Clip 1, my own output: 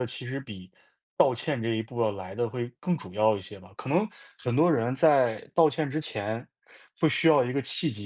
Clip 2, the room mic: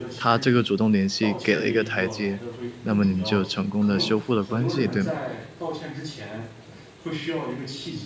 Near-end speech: present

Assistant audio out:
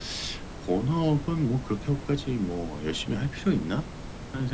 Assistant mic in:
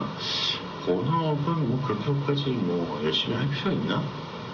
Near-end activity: none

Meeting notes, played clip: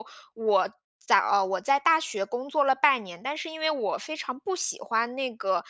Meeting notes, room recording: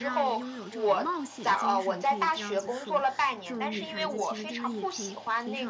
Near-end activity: present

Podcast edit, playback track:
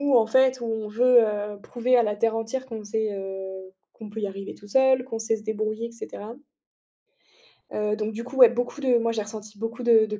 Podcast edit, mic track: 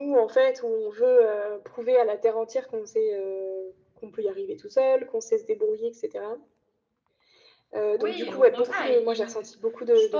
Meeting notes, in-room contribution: present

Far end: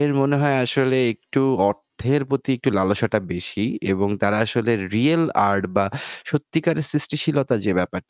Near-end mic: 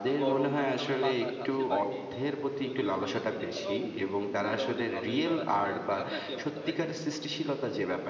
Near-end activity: present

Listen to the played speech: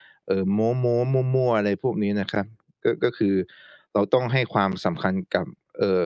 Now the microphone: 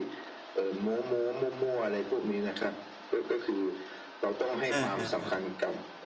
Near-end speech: present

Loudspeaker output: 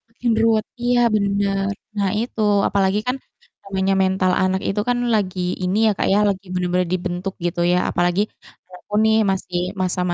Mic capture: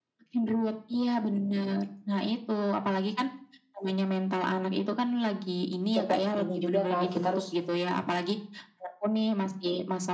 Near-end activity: present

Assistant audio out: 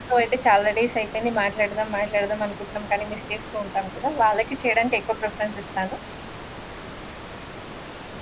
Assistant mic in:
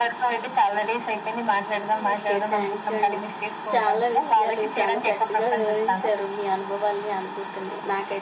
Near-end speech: present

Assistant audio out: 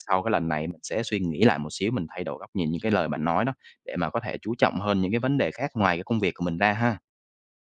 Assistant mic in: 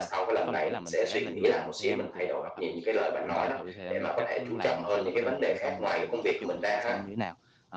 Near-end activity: present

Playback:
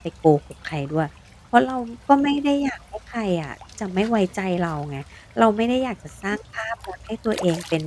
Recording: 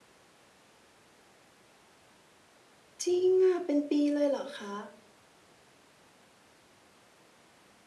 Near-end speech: present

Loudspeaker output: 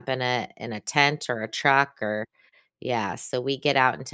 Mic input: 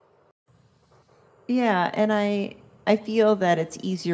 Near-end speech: present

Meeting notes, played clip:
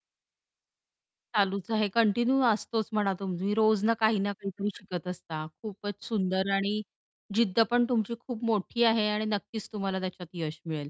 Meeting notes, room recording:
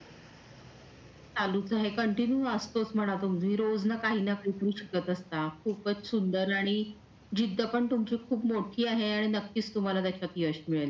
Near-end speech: none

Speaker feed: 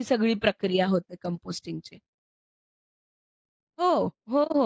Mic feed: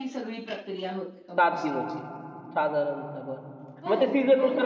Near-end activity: present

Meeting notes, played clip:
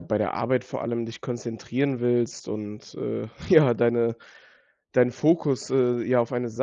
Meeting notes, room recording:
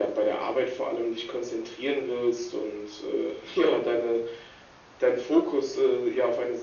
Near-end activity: none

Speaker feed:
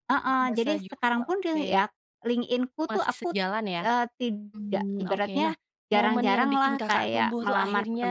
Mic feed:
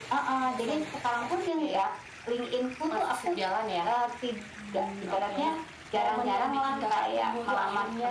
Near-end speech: none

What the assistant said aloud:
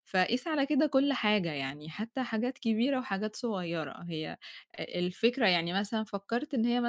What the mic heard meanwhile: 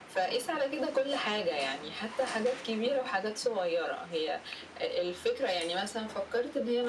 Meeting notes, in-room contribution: none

